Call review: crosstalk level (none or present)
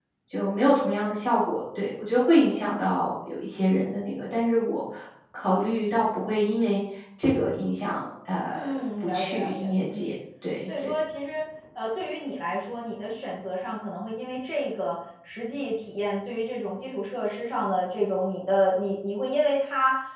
present